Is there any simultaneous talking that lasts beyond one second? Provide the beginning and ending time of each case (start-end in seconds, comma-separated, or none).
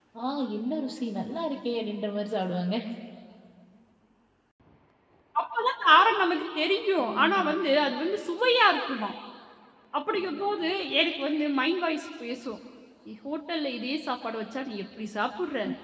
none